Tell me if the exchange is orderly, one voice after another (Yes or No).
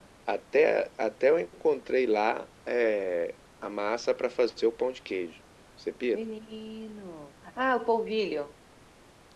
Yes